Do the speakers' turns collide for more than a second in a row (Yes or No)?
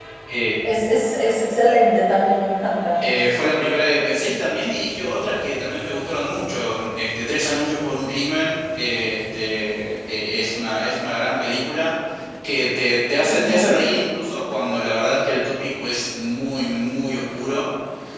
No